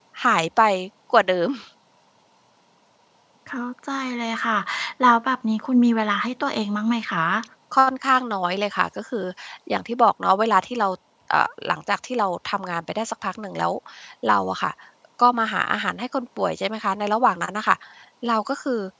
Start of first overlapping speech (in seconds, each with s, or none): none